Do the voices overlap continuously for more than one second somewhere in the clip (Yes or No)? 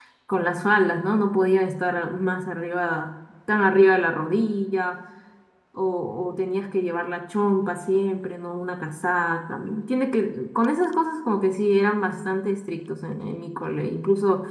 No